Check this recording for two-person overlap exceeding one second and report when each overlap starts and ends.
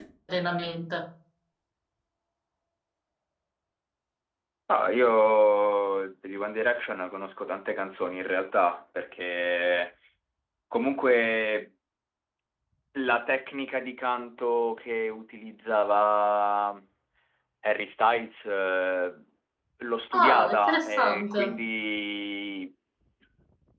20.1-21.4

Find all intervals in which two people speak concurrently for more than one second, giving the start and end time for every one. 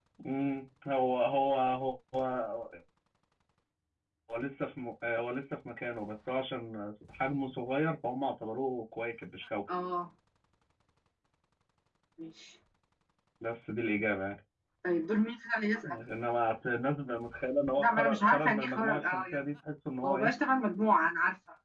17.8-19.4

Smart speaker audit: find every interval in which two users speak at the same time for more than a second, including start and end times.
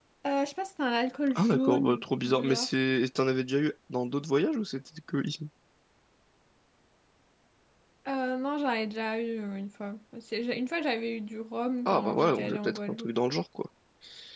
1.3-2.7, 11.8-13.1

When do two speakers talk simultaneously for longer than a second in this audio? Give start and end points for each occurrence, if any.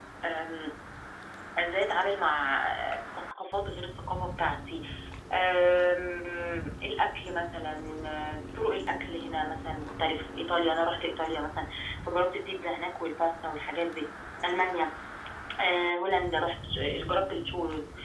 none

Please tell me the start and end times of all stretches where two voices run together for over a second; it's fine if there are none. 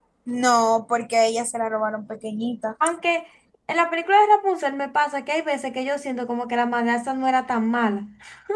none

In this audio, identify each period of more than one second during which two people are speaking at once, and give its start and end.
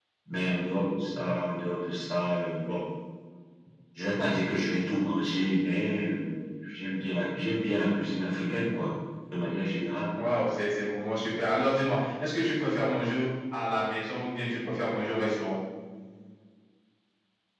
none

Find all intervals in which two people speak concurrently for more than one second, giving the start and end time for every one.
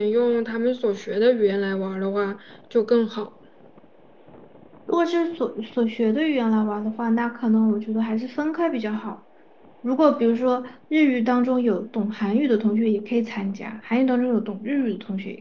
none

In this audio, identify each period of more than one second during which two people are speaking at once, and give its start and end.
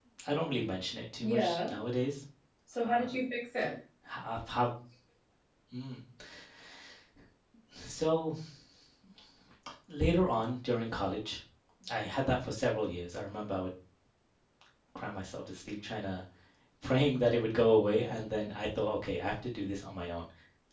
none

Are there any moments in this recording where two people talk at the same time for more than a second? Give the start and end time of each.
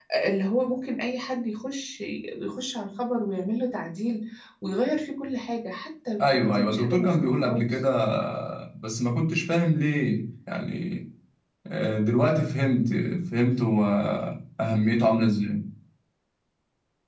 6.2-7.8

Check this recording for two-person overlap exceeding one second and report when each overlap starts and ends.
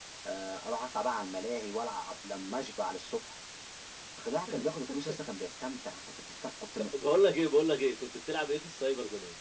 none

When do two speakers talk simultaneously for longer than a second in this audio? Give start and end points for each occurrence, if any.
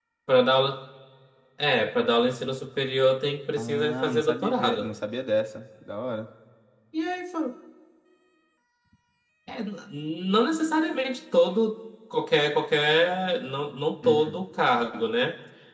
3.6-4.9

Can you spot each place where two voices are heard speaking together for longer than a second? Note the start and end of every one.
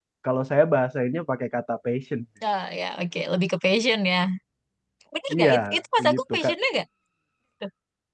none

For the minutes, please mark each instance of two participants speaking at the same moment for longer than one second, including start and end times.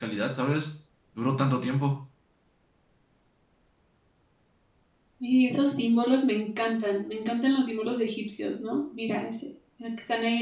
none

